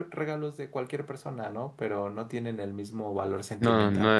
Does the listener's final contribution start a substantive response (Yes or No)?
Yes